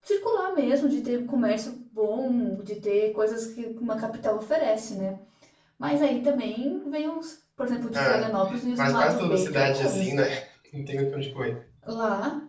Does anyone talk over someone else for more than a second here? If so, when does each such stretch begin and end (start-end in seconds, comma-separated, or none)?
8.8-10.2